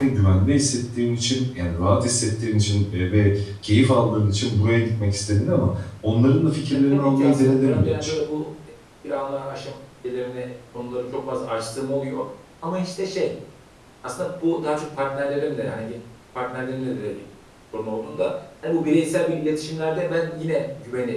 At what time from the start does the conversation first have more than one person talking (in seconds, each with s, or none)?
6.7 s